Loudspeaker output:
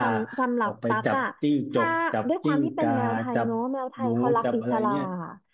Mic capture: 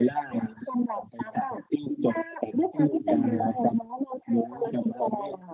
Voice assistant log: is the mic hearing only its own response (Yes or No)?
No